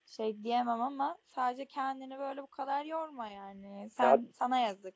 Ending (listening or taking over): listening